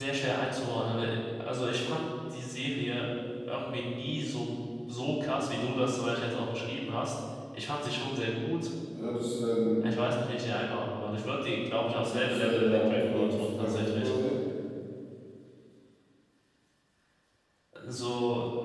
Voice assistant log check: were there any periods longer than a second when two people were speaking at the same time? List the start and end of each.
11.9-14.1

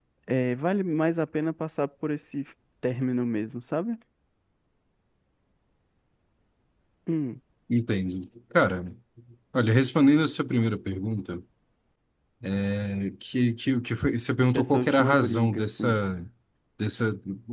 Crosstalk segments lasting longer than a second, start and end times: 14.5-16.0

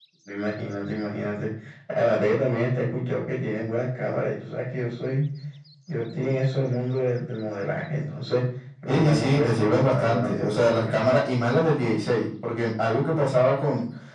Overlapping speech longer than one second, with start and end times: 8.9-11.0

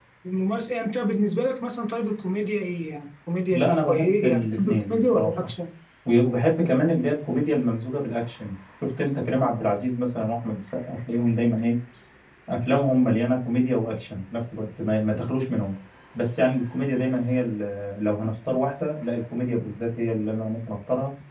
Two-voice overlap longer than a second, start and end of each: 3.5-5.5

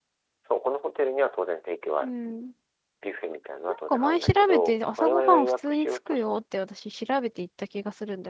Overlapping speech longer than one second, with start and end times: 3.7-6.2

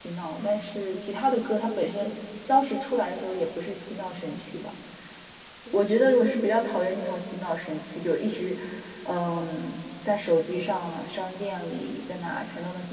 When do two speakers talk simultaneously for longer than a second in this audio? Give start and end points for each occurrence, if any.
none

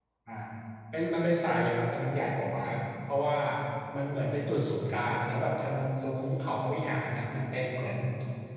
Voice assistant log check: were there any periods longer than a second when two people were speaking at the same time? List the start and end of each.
none

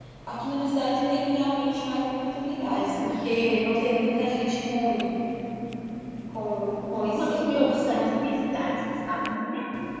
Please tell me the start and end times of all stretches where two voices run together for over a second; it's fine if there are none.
6.7-8.1

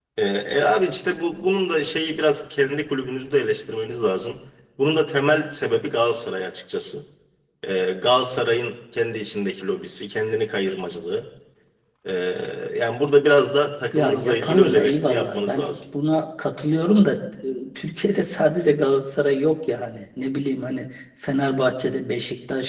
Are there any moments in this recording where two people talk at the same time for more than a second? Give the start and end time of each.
14.0-15.8

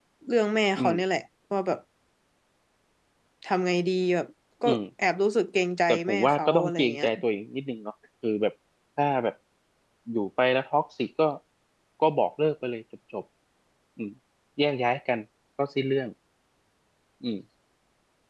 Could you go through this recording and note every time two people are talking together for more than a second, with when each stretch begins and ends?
5.9-7.1

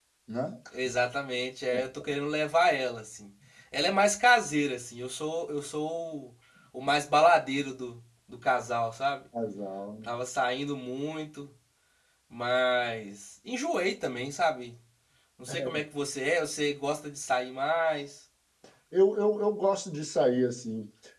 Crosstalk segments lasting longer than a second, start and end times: none

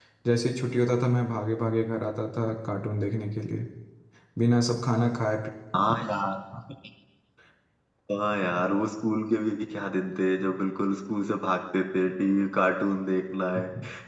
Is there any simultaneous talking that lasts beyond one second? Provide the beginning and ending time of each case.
none

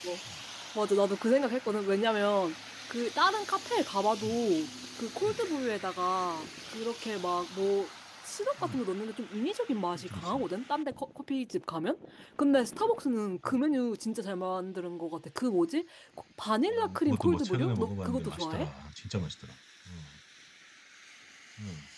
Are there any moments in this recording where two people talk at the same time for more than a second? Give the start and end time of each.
16.7-18.7

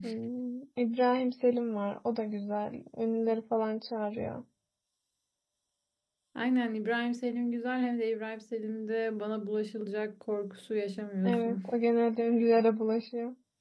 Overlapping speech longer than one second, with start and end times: none

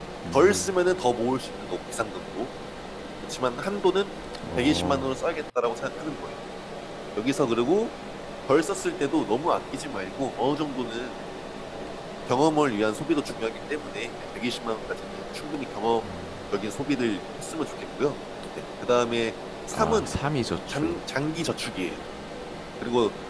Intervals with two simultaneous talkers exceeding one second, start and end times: none

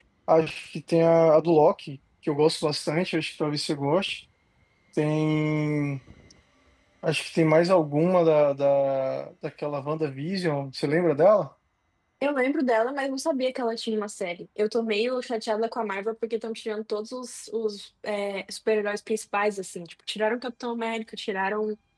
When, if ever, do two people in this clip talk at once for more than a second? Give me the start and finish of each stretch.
none

